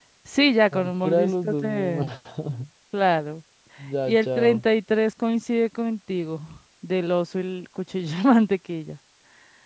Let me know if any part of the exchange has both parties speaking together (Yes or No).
Yes